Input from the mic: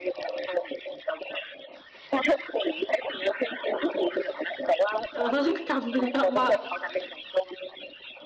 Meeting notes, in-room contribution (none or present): present